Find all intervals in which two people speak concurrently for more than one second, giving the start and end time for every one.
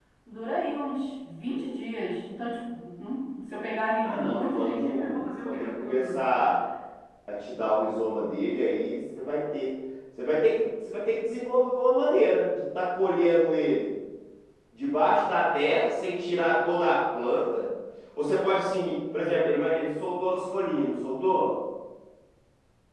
4.0-6.2

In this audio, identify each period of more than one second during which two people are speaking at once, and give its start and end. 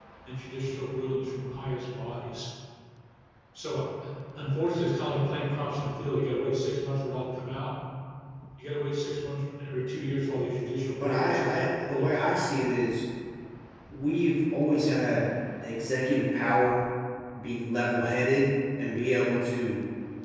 11.0-12.4

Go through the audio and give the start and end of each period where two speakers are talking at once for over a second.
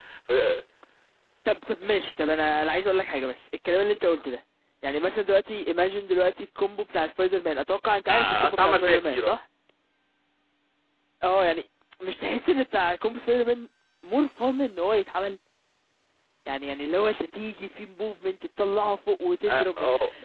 8.1-9.4

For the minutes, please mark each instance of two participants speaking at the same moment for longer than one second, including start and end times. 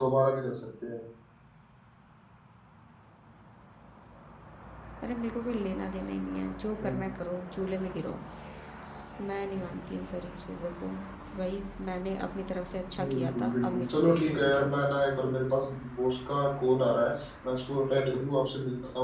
13.1-14.6

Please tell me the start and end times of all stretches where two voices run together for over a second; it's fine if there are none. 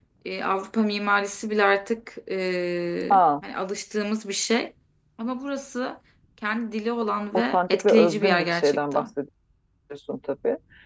7.3-9.1

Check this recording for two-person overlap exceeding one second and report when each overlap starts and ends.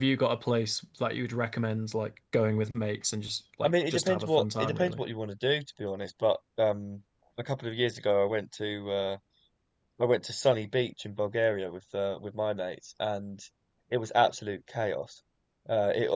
3.6-5.0

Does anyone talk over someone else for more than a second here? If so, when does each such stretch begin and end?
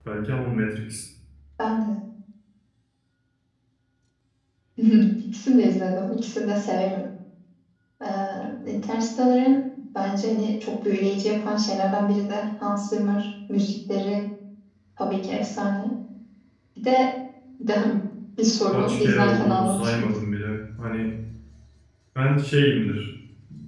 18.7-20.1

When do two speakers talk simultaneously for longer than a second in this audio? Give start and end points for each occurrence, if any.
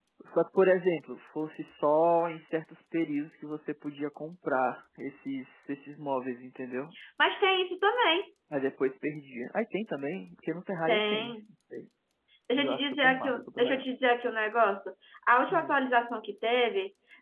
12.6-13.8

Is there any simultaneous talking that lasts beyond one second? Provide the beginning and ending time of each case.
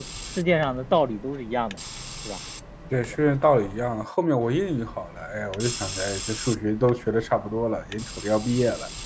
none

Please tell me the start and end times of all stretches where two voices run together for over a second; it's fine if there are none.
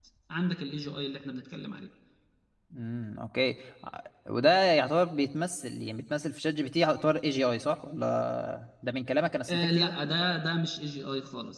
none

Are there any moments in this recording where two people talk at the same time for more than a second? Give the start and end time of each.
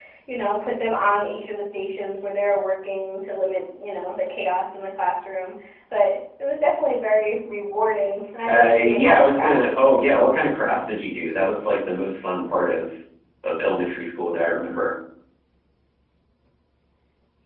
8.4-10.3

